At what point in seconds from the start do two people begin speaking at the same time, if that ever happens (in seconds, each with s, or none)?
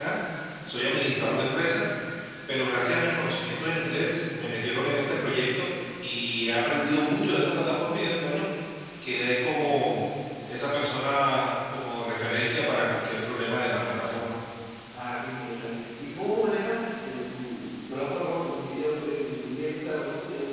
none